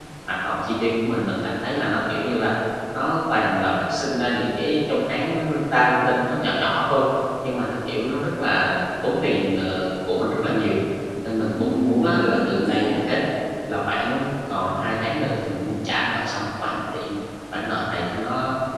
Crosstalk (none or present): present